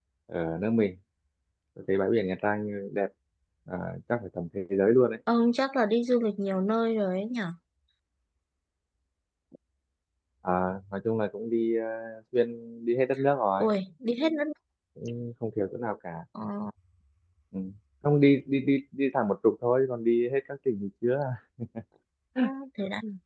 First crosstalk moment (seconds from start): none

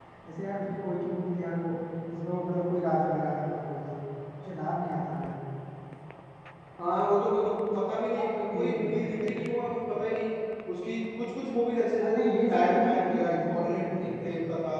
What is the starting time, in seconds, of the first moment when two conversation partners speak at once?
8.2 s

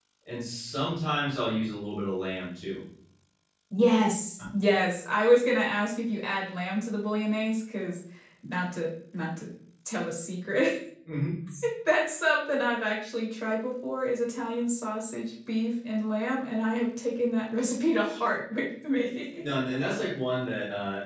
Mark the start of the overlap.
none

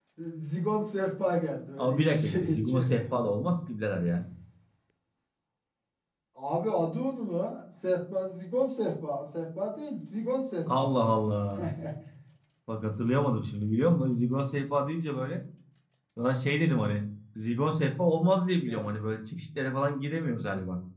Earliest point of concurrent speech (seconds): 1.8 s

